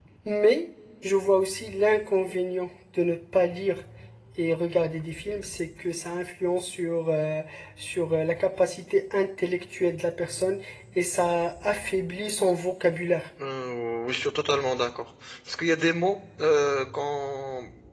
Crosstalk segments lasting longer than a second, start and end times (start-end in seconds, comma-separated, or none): none